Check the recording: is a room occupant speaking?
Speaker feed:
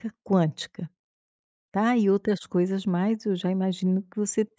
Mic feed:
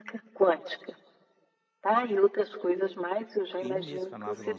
Yes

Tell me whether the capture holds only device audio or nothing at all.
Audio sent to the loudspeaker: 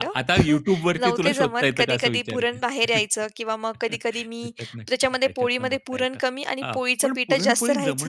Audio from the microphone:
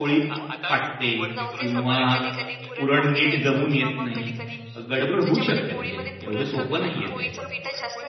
No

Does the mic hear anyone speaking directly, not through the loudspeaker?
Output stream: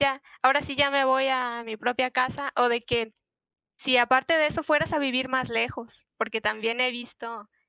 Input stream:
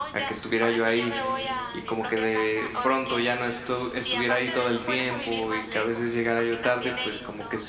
Yes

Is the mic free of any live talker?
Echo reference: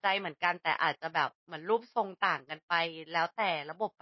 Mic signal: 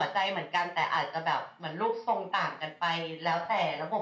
Yes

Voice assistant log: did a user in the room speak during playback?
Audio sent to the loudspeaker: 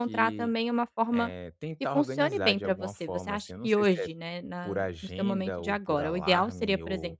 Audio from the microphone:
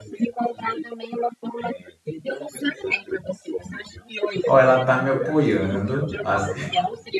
Yes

